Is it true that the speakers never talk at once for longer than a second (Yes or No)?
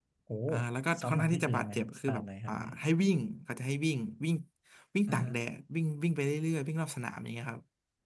No